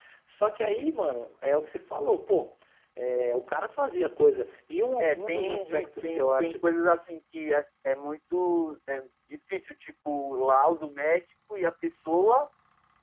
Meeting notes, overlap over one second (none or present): present